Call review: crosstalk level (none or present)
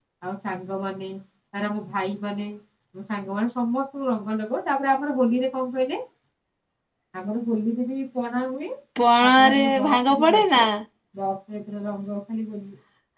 present